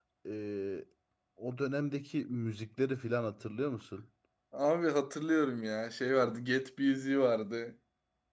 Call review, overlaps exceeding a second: none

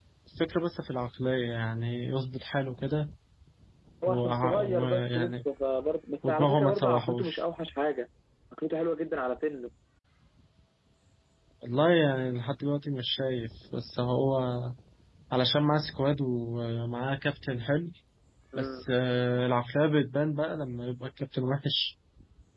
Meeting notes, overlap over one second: present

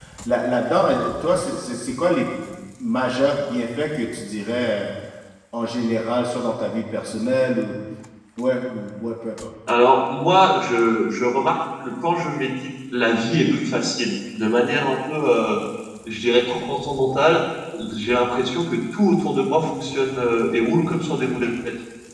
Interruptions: none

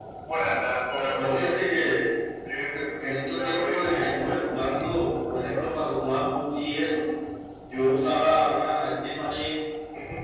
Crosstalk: present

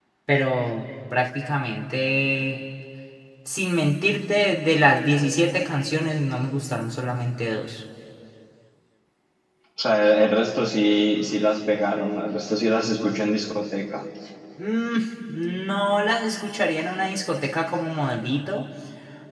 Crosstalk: none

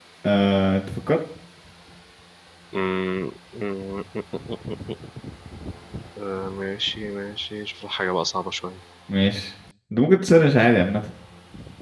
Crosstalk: none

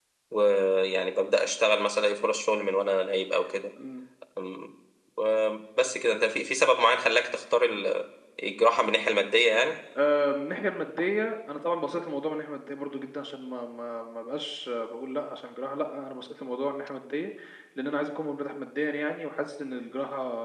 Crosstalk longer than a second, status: none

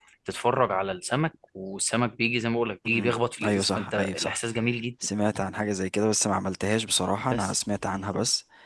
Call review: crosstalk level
present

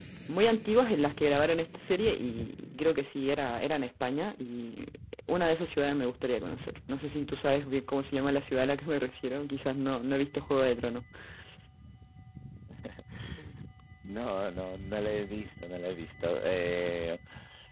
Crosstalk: none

